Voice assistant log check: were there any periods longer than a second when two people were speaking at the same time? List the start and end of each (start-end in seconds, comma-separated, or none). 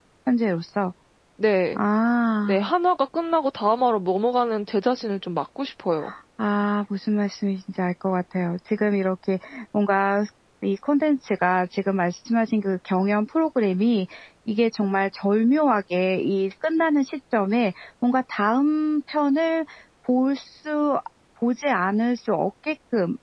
none